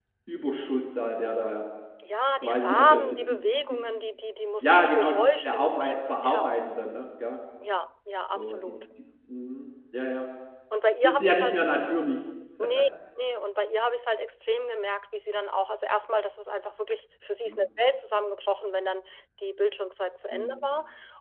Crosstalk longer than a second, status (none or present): present